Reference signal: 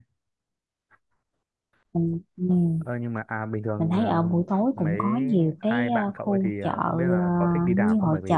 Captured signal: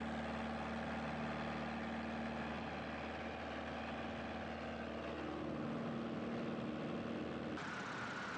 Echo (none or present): none